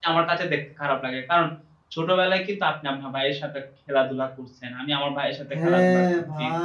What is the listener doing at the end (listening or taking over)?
taking over